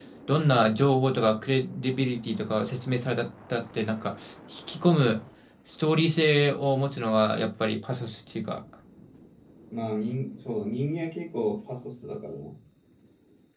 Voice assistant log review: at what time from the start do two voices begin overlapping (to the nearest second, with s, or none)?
none